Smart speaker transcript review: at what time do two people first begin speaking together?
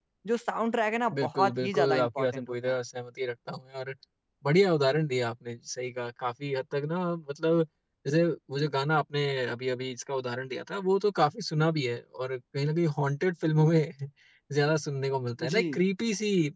1.2 s

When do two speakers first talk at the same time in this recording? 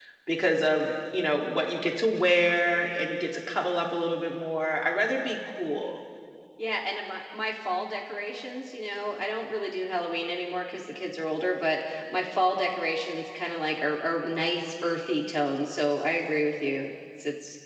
none

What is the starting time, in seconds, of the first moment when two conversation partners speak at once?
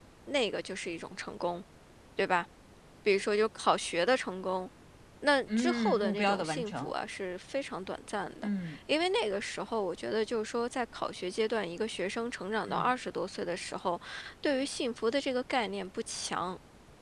5.6 s

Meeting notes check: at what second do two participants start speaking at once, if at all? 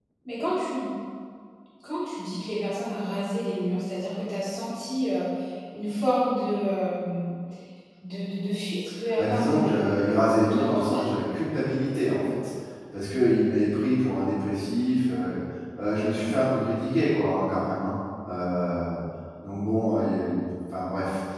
9.2 s

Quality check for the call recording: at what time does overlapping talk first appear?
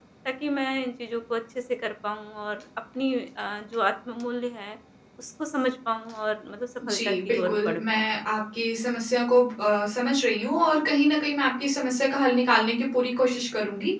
6.8 s

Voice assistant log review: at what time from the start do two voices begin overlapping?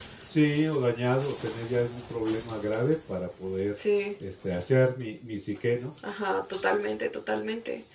none

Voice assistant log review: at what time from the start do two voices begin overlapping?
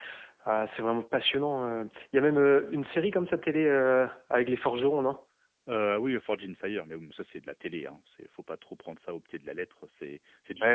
none

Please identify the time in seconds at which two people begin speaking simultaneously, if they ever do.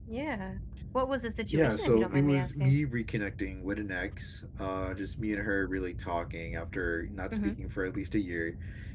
1.5 s

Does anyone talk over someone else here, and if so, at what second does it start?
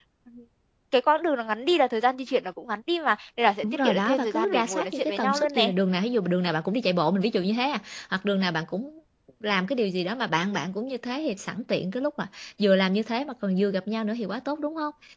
3.6 s

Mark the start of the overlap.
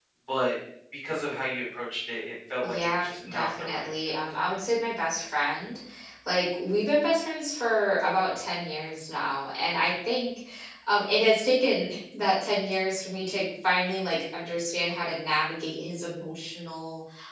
2.6 s

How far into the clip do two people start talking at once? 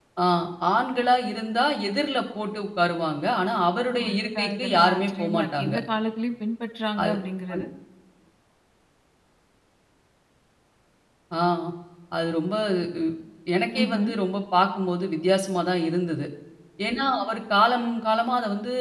4.1 s

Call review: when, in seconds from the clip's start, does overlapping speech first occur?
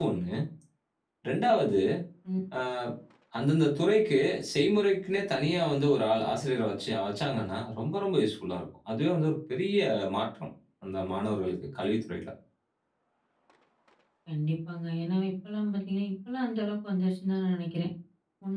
none

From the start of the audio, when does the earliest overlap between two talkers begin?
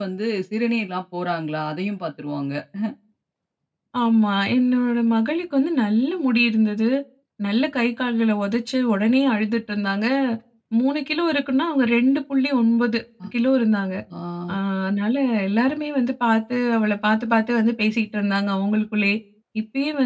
none

